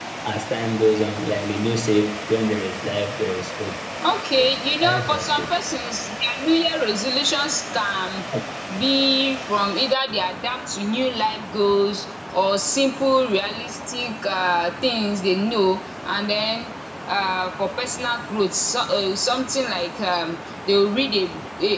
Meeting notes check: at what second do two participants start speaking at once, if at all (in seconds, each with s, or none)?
4.3 s